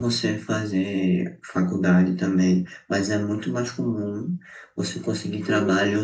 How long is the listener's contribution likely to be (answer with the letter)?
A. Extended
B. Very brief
B